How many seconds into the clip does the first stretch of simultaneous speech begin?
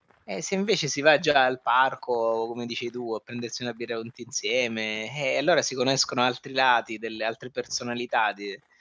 none

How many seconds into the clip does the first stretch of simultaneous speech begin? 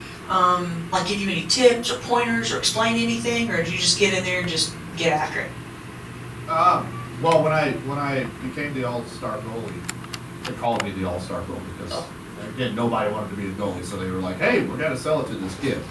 none

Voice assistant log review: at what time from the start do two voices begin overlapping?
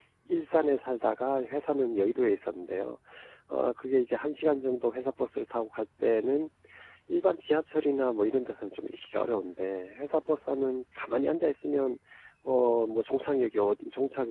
none

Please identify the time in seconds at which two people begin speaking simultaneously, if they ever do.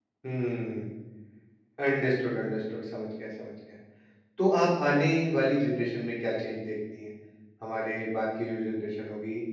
none

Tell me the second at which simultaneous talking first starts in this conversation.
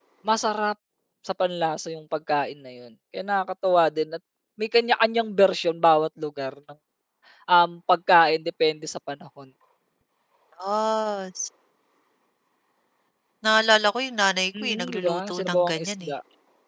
14.6 s

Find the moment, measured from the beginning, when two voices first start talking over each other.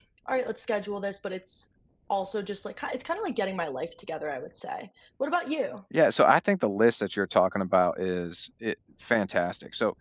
none

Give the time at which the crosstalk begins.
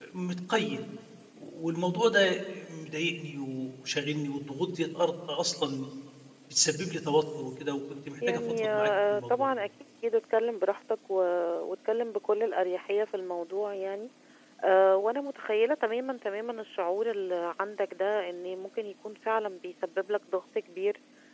8.2 s

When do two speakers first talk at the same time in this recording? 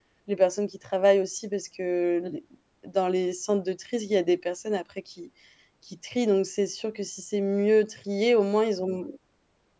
none

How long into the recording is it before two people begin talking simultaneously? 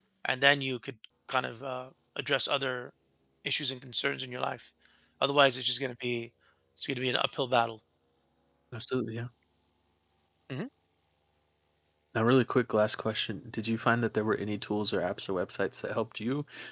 none

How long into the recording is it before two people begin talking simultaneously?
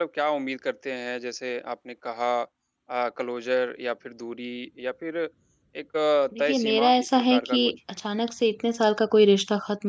6.4 s

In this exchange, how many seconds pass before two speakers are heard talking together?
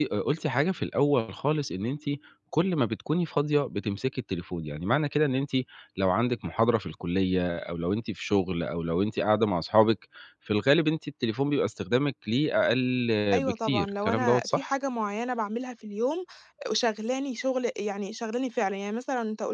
13.4 s

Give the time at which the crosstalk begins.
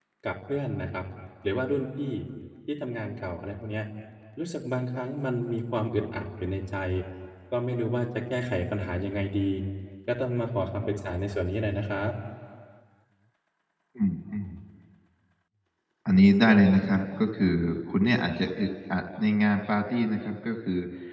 none

